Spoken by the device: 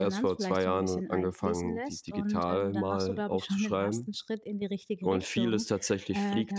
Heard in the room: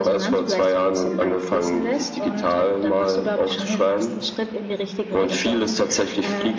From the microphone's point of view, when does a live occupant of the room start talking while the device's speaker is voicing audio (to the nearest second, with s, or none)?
none